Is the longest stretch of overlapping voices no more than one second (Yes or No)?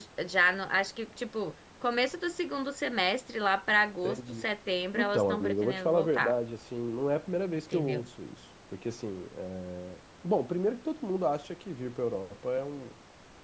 No